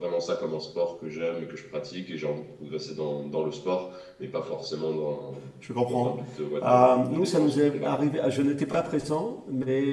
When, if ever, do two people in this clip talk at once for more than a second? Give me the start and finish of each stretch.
6.6-8.0

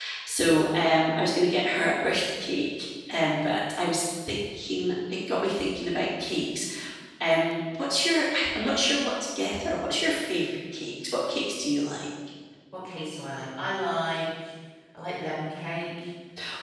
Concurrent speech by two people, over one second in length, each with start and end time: none

